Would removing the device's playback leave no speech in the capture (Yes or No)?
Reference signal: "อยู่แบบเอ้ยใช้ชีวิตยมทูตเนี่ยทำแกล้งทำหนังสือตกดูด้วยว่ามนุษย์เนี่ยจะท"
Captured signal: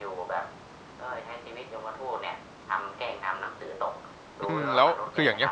No